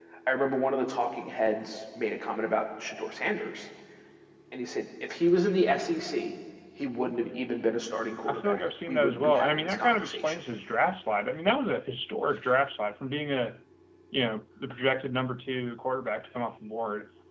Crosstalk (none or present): present